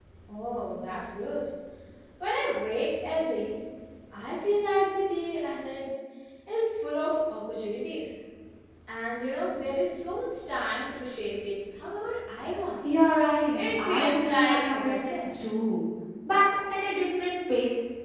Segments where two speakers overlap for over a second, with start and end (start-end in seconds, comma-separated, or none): 13.5-15.3